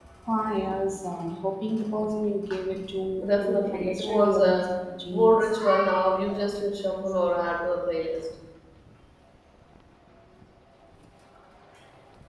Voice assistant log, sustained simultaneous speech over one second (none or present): present